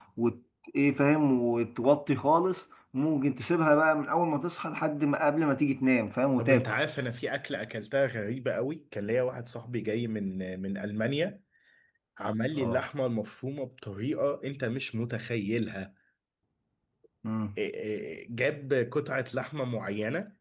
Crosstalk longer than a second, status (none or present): none